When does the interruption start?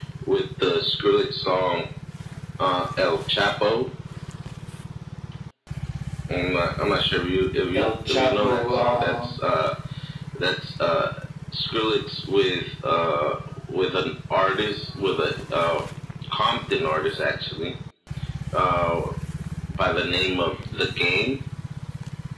7.8 s

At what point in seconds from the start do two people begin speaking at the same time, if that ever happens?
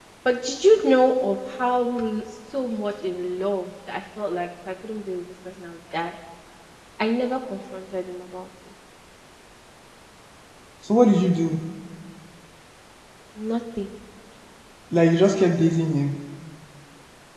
none

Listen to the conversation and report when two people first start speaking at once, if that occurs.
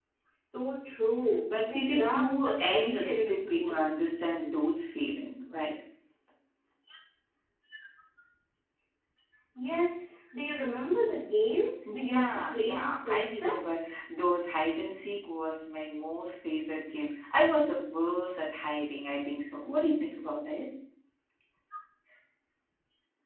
1.5 s

